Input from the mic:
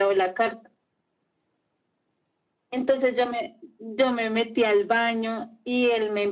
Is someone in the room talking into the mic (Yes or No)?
No